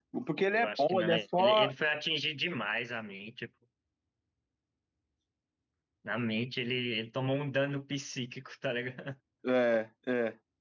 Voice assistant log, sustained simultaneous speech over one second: present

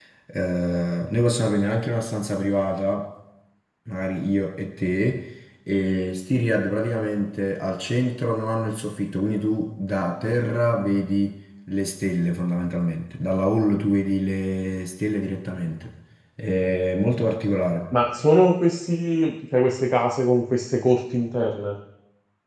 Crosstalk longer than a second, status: none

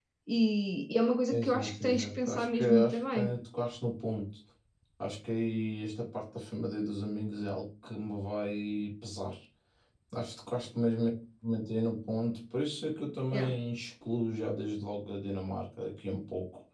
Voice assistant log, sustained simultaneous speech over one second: present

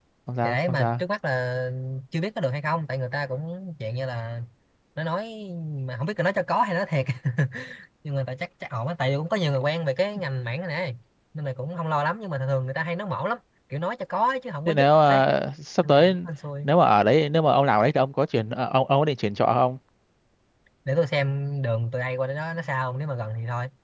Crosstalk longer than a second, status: none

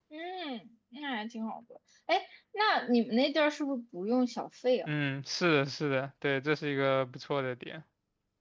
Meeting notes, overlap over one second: none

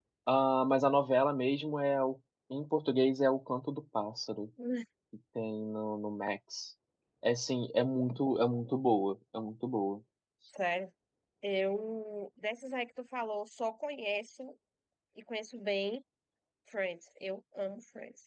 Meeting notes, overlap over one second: none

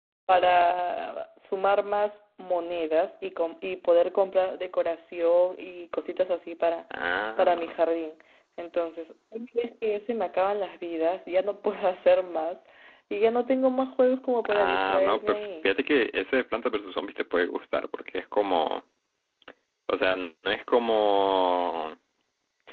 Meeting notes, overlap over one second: present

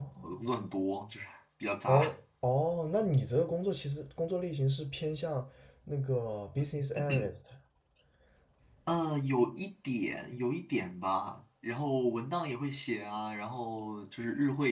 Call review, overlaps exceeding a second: none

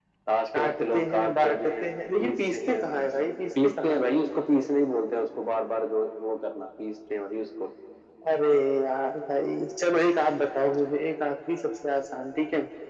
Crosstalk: present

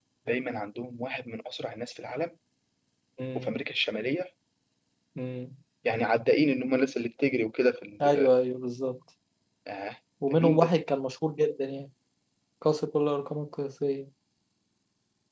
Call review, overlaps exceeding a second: none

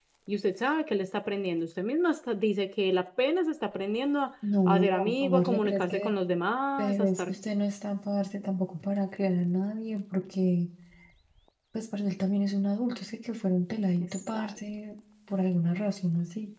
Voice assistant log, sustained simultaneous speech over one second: present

